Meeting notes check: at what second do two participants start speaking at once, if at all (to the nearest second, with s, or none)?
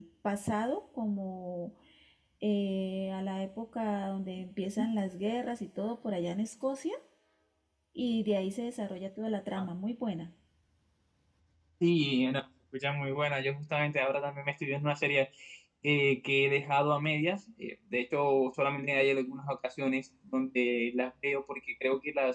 none